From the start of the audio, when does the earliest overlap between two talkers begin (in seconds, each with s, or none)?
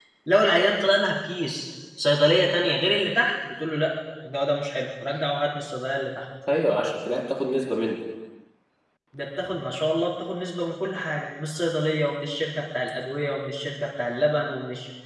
none